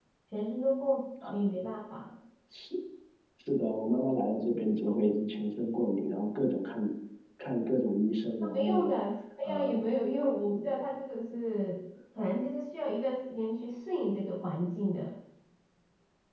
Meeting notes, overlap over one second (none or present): none